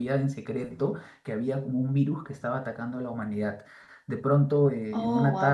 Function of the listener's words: listening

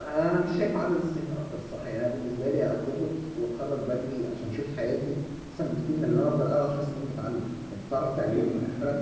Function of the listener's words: taking over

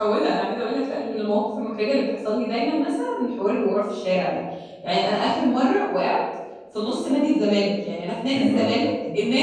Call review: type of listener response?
listening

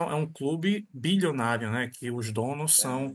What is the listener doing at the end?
listening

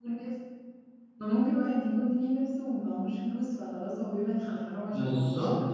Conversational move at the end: taking over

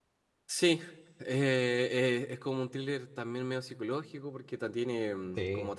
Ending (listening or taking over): listening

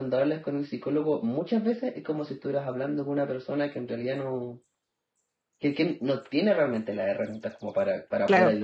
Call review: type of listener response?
listening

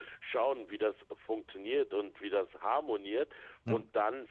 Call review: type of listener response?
listening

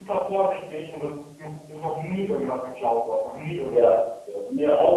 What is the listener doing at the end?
taking over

